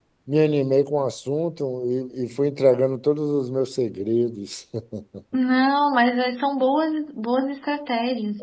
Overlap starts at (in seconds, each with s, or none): none